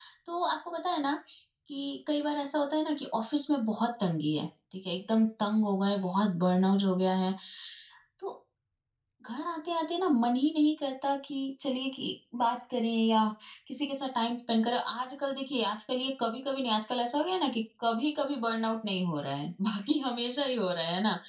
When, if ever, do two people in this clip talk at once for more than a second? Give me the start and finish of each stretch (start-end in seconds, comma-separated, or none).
none